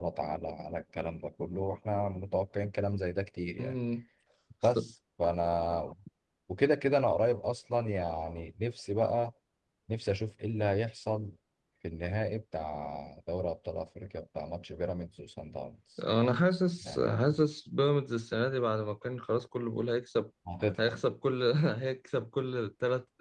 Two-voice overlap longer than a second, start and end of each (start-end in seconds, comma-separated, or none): none